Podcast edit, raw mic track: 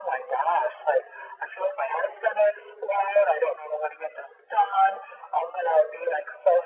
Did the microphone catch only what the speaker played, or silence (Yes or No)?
Yes